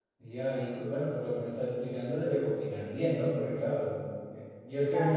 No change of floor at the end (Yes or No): Yes